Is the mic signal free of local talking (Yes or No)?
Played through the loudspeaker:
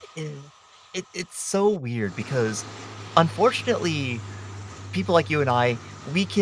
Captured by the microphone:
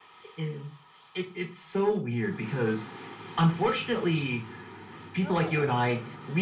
No